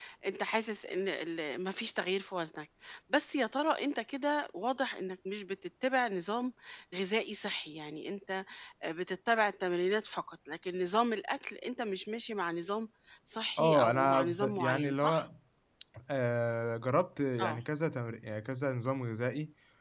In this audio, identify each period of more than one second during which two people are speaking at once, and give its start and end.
13.6-15.2

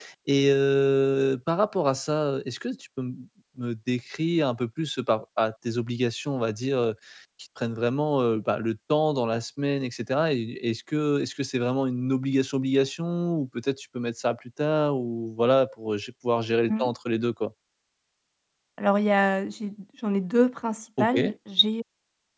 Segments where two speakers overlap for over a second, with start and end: none

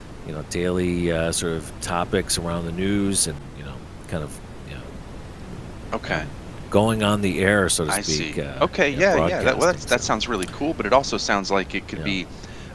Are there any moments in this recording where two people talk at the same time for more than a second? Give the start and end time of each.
7.9-10.1

